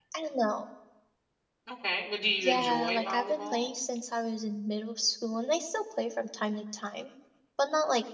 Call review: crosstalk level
present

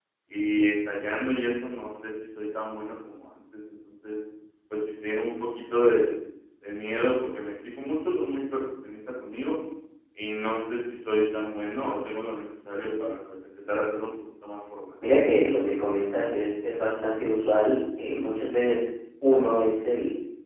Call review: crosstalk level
none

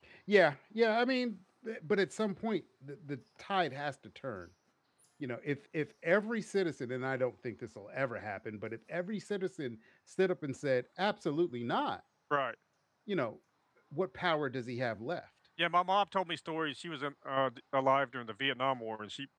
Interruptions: none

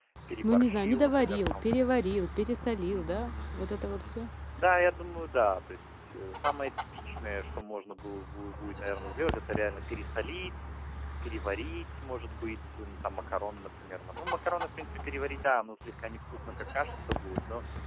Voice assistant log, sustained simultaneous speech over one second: present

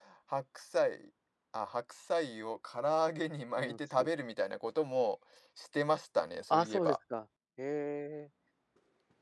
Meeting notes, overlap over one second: none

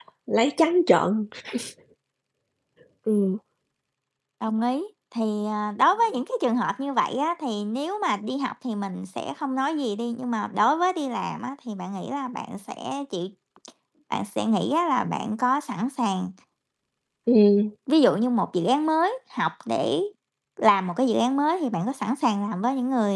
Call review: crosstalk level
none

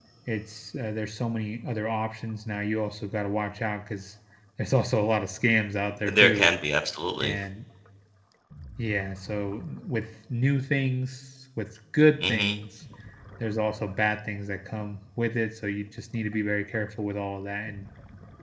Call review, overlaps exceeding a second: none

